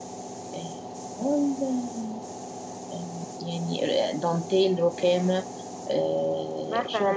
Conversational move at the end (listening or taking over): taking over